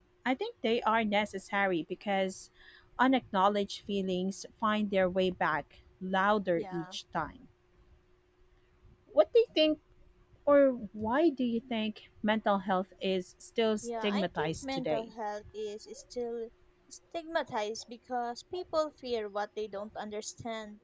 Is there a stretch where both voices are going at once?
Yes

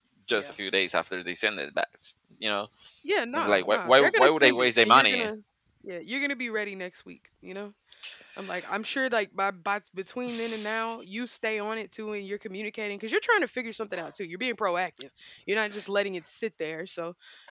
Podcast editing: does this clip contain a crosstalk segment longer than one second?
Yes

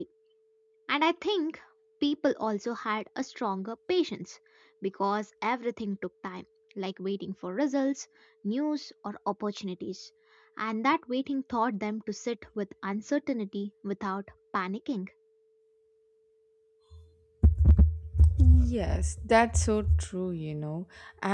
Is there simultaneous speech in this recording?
No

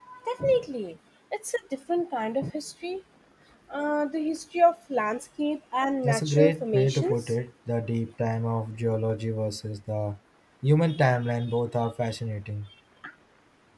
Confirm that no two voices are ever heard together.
No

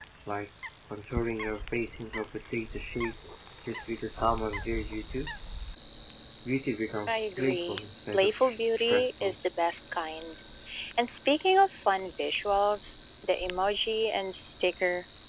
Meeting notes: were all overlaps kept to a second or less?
No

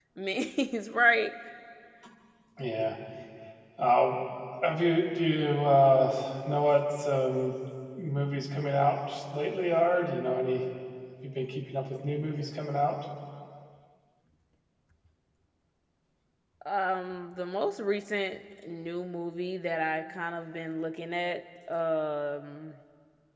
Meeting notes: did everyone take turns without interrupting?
Yes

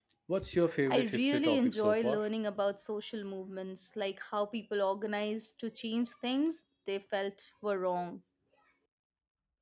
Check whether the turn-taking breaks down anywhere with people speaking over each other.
Yes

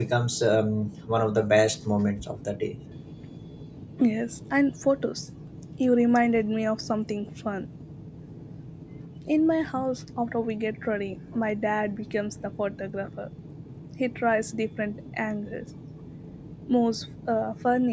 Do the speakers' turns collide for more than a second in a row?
No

